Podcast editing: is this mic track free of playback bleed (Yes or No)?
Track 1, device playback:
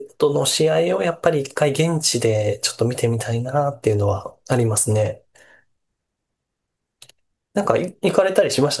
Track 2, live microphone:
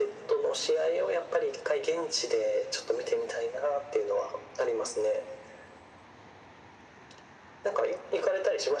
No